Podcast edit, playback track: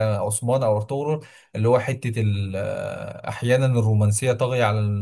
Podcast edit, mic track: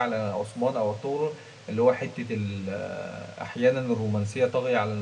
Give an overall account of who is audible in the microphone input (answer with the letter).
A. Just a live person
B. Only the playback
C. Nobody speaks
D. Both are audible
B